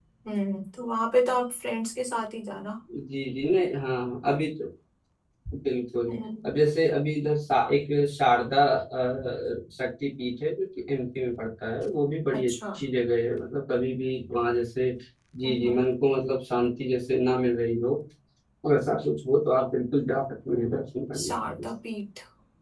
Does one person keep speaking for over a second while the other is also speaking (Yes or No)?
No